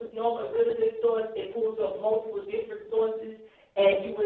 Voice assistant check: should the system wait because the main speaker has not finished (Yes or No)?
Yes